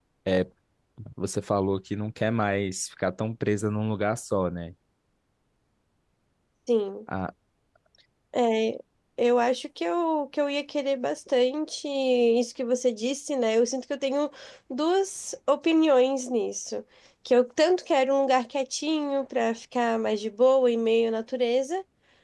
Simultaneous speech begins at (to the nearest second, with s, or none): none